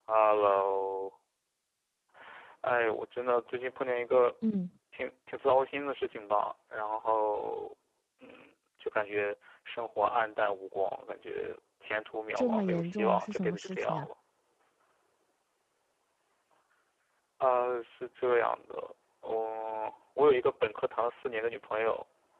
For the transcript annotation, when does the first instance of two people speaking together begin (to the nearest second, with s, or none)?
12 s